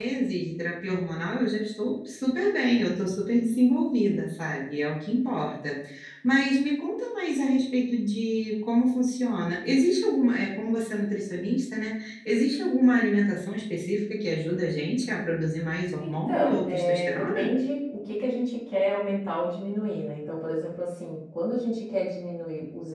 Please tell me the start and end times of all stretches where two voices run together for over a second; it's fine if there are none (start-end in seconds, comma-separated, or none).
16.0-17.5